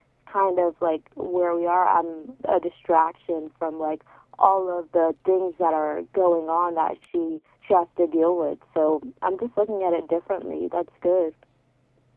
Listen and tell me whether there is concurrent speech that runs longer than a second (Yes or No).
No